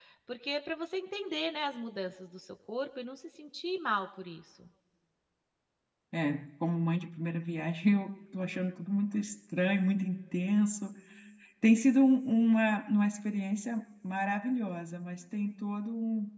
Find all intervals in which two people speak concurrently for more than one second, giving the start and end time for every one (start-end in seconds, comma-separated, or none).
none